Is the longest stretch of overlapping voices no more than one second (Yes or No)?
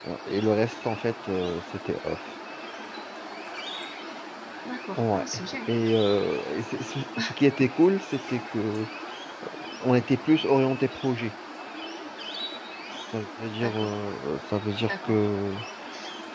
Yes